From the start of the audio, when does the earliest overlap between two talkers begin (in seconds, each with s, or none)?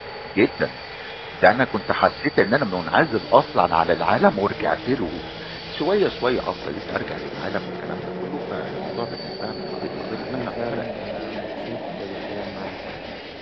9.7 s